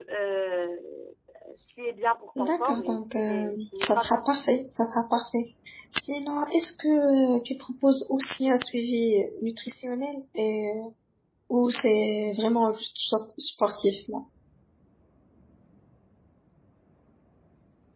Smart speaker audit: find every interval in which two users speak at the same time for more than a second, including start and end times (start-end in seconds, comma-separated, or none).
2.4-4.2